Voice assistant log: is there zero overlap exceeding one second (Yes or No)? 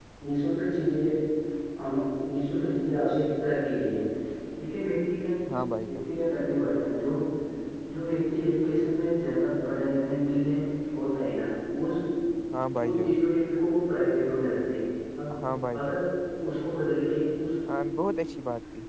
Yes